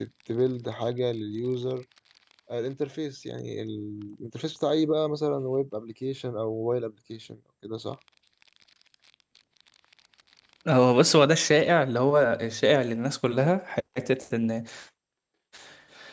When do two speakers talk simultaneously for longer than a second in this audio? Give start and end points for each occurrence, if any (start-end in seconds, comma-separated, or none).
none